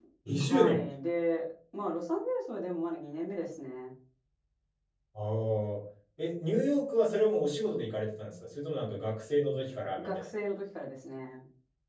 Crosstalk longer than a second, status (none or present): none